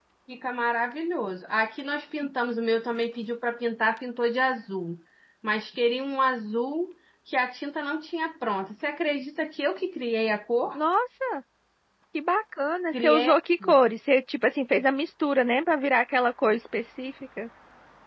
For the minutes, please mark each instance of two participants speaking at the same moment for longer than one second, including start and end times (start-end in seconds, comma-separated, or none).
none